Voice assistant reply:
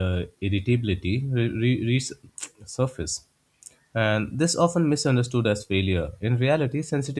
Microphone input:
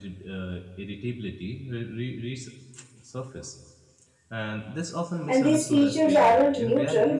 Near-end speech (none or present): present